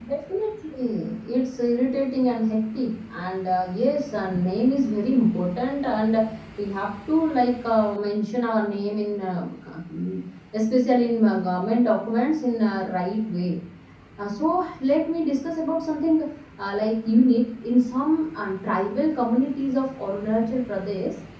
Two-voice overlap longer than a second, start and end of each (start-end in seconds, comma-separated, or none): none